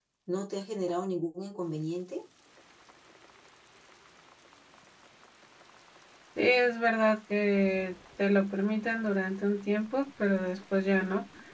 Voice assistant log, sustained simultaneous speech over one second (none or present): none